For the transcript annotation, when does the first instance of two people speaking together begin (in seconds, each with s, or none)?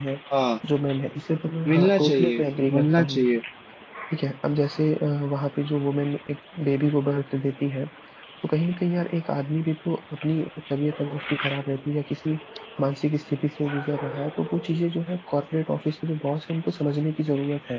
1.7 s